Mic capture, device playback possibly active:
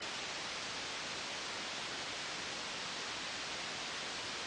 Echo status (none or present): none